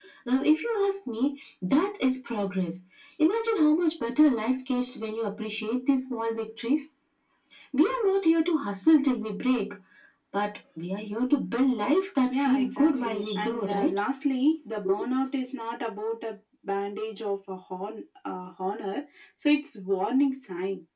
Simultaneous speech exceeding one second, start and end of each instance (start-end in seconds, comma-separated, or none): 12.3-14.0